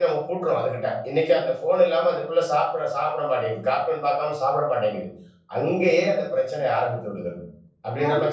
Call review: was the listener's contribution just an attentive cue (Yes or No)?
No